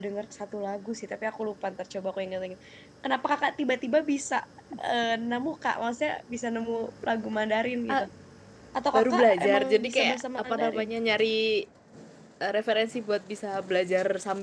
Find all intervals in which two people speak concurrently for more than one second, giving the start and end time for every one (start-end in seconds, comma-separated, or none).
8.9-10.9